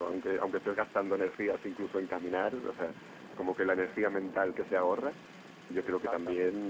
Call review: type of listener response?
listening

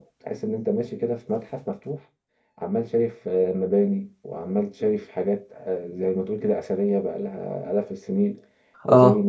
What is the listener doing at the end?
listening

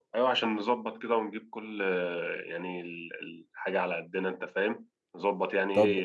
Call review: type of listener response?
taking over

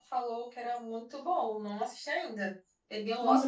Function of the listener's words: taking over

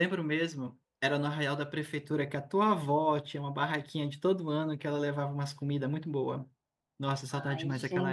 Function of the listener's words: taking over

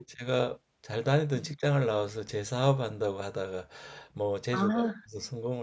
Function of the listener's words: listening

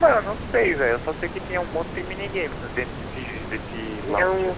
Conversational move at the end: taking over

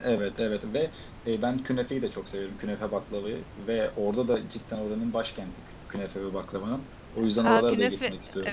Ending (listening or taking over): taking over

